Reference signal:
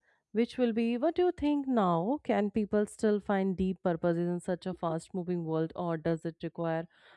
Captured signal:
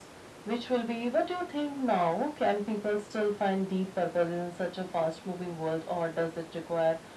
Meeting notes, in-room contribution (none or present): none